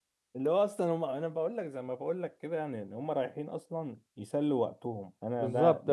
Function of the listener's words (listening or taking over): taking over